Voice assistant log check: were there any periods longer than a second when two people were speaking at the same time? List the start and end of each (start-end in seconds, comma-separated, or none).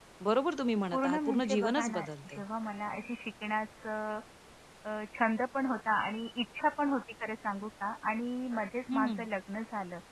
0.9-2.4